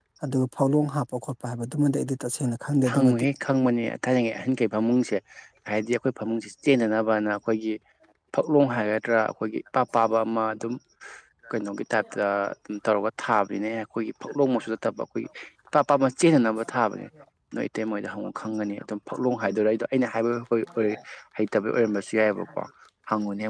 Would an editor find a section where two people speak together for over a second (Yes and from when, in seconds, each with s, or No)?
No